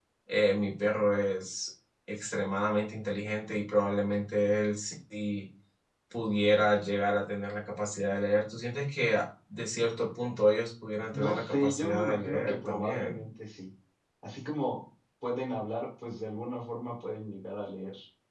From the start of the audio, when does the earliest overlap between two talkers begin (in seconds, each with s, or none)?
11.1 s